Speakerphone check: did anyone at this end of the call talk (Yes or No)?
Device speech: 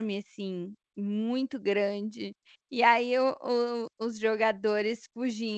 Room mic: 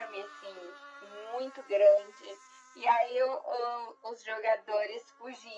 No